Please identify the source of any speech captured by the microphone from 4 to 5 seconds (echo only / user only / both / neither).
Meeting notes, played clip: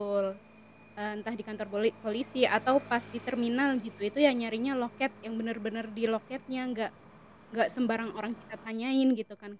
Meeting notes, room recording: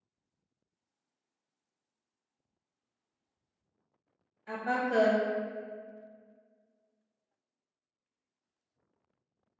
user only